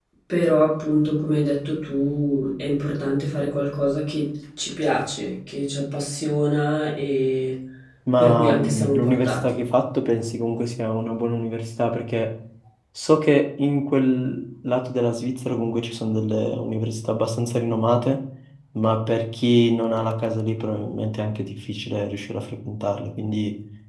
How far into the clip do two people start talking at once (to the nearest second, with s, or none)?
8 s